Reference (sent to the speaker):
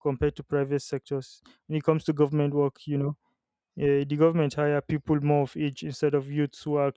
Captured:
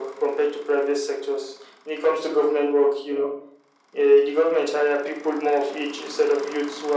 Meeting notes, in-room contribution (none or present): none